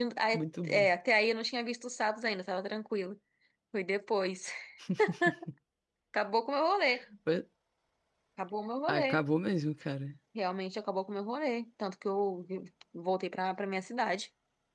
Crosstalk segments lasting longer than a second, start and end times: none

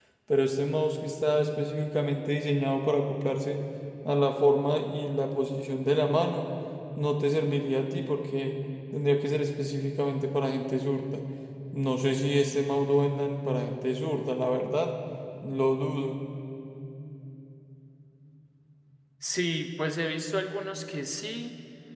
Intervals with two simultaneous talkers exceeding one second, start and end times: none

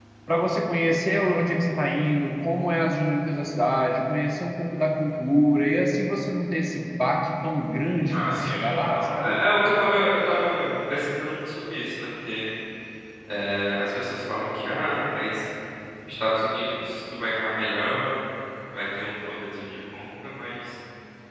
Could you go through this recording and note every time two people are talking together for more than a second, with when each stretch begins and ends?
8.1-9.4

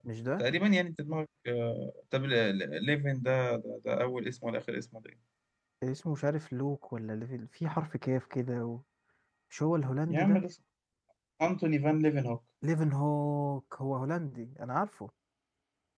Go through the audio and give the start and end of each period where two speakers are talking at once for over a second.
none

